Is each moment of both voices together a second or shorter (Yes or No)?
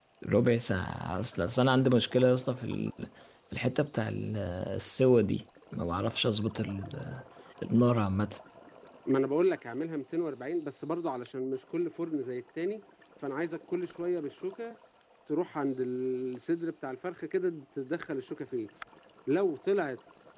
Yes